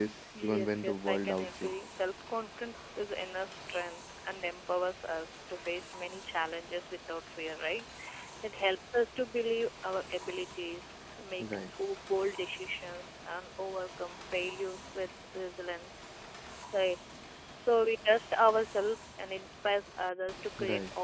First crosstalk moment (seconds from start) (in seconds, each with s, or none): 0.5 s